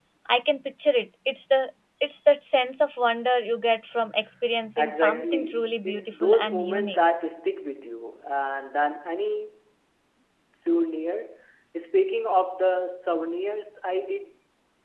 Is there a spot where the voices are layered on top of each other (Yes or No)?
Yes